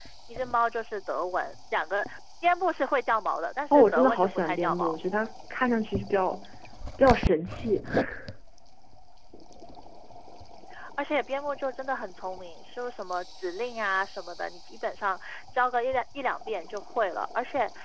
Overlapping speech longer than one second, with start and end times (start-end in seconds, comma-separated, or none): 3.7-5.0